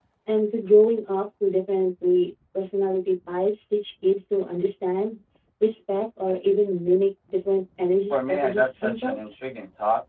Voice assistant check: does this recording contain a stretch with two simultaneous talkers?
Yes, from 8.1 s

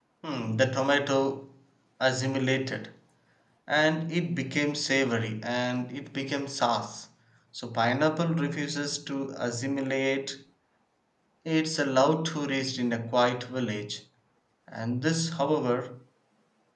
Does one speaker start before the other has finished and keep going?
No

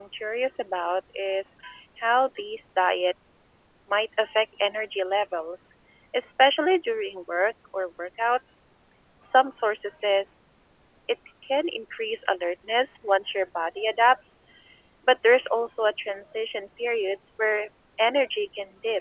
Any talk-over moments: No

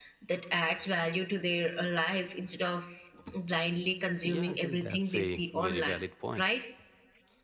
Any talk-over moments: Yes, from 4.2 s

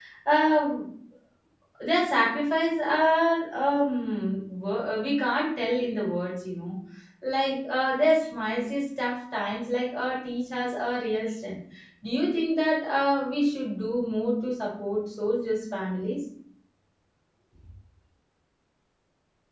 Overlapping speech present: No

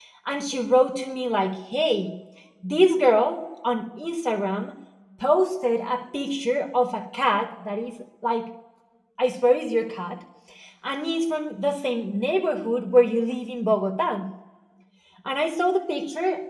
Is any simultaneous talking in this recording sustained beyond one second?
No

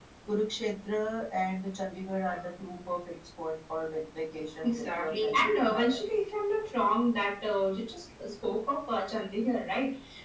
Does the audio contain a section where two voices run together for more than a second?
Yes, from 4.6 s

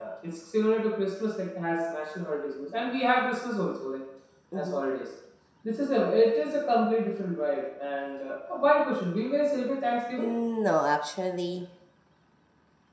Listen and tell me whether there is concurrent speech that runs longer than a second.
No

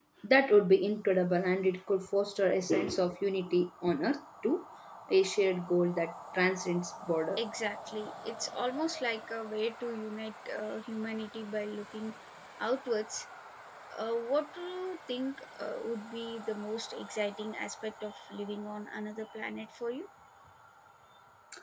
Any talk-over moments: No

